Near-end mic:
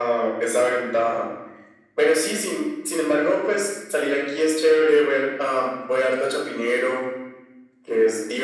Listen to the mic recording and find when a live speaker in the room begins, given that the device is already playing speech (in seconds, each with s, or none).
none